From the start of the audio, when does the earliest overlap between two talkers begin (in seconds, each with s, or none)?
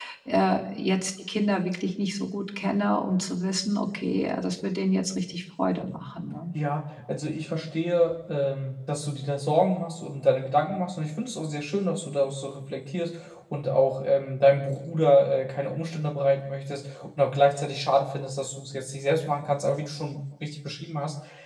none